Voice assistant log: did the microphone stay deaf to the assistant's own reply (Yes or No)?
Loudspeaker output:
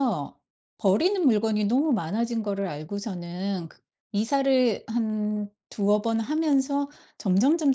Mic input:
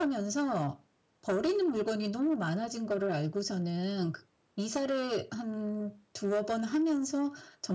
No